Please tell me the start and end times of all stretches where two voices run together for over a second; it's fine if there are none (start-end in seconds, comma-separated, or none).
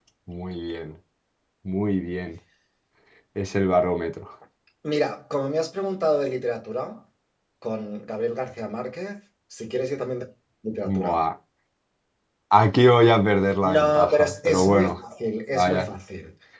13.6-14.9